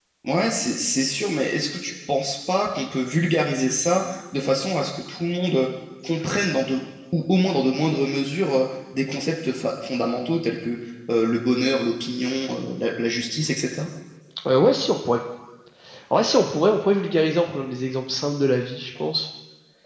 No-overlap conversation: Yes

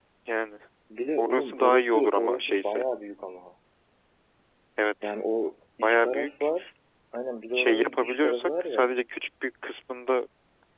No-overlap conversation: No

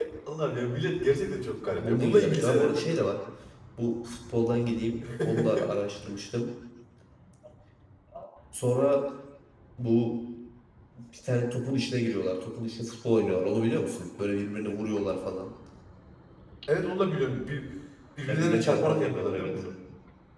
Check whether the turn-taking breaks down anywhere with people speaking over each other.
Yes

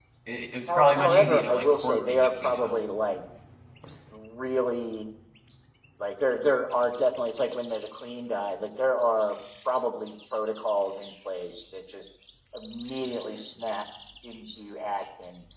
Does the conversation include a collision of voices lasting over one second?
Yes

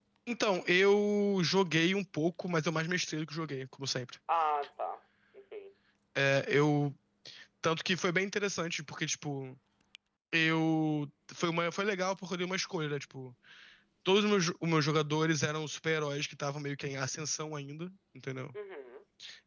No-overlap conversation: Yes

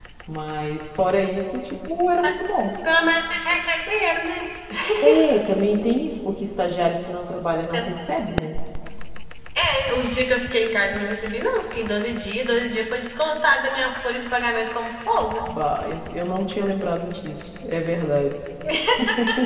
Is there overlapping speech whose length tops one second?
No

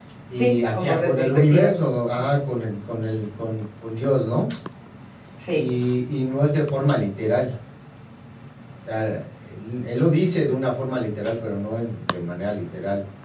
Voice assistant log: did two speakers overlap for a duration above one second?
Yes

